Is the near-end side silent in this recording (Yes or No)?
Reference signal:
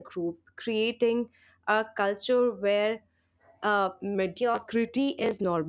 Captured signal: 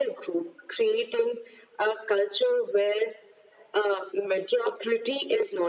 Yes